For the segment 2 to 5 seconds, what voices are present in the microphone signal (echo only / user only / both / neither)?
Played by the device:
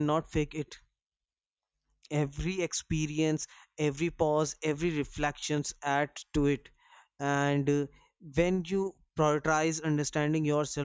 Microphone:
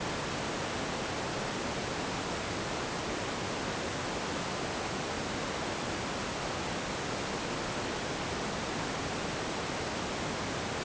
neither